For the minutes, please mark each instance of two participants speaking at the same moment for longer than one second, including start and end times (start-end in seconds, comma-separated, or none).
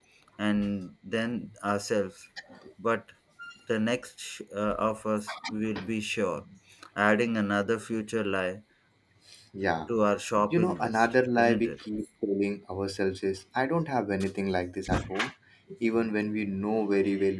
10.5-11.7